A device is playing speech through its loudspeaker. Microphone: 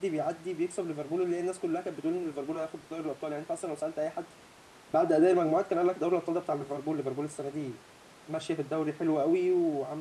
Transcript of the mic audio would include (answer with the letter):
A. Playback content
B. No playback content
B